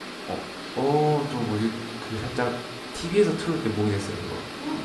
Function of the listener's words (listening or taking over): taking over